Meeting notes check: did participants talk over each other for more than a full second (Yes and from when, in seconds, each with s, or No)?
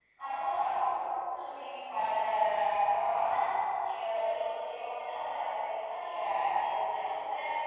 No